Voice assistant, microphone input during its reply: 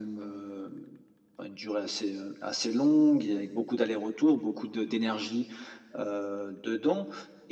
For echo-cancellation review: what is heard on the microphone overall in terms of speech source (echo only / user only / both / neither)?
echo only